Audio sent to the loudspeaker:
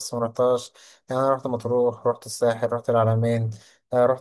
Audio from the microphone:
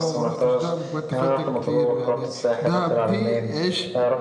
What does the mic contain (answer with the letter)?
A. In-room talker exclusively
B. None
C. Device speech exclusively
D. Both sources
D